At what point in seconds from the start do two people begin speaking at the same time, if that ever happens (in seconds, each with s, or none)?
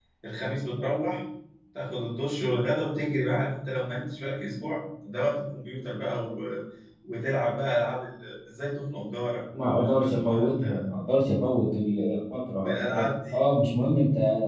9.6 s